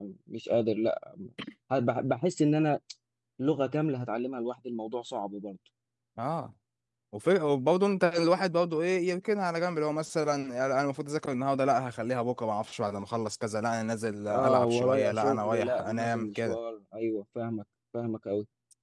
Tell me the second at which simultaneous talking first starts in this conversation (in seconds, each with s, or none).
14.3 s